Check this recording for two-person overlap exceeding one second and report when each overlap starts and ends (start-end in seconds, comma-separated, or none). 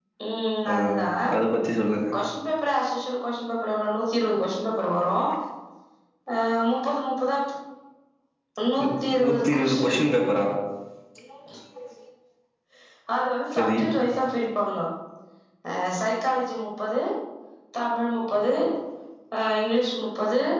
8.8-10.0